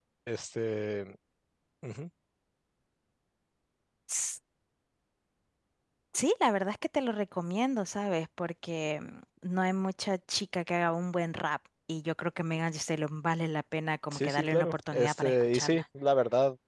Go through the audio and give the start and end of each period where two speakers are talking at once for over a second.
14.1-15.8

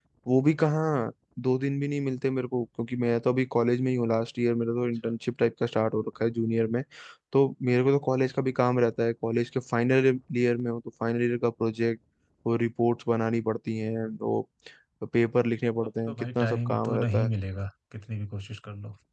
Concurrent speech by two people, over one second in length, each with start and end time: 16.1-17.3

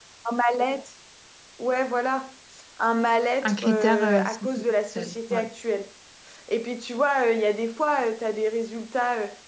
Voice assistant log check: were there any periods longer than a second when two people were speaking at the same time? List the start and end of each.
3.4-5.5

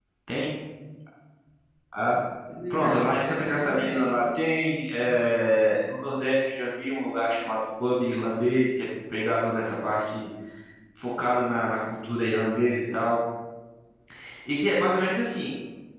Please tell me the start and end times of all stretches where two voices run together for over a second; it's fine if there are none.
2.7-4.2

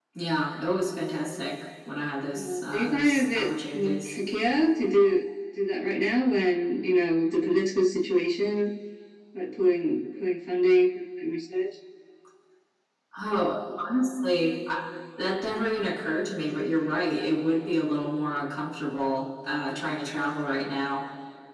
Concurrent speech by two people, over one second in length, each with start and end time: 2.3-4.1

